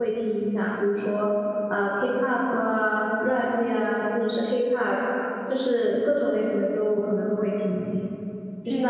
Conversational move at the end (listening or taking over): listening